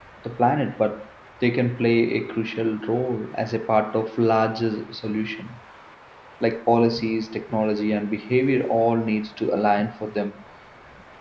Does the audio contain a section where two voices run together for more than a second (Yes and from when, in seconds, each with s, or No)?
No